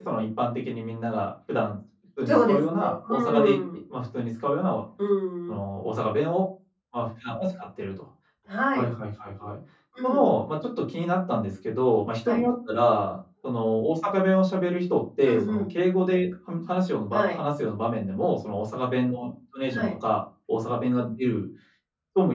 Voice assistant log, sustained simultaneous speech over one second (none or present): present